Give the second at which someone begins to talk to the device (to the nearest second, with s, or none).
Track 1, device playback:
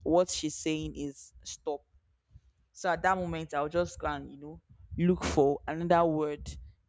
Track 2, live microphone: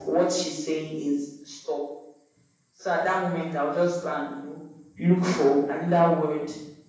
none